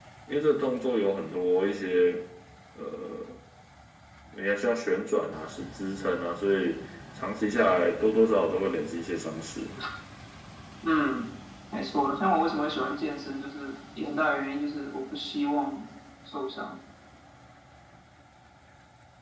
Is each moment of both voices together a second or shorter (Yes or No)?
Yes